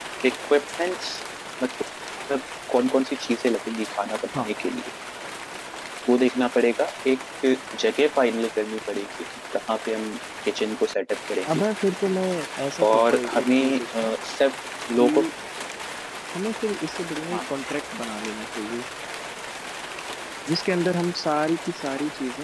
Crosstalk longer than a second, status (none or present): present